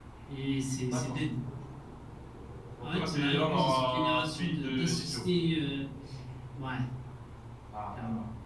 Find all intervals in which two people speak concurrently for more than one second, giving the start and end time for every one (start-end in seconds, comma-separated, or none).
2.8-5.2